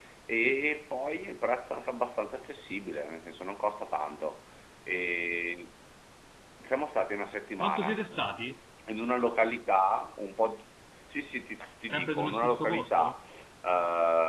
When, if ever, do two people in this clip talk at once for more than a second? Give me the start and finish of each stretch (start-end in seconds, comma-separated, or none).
11.9-13.2